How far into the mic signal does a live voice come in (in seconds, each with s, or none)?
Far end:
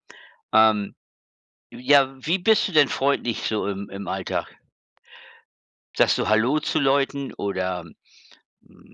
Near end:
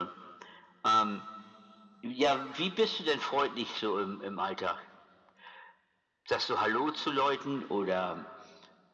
none